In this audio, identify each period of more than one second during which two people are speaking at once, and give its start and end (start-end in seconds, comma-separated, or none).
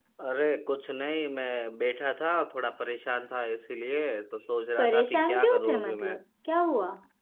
4.8-6.1